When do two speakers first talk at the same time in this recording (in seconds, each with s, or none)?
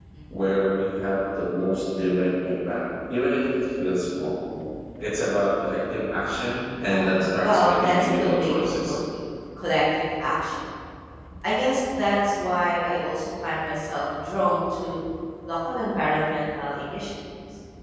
6.9 s